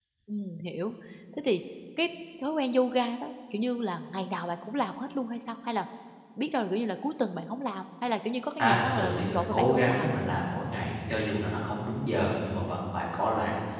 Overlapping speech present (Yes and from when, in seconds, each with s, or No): Yes, from 8.6 s